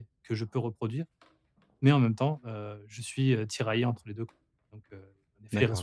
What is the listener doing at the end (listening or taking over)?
taking over